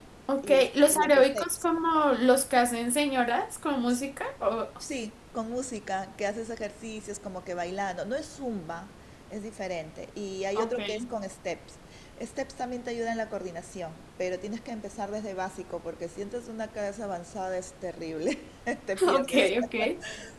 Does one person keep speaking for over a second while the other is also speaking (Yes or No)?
Yes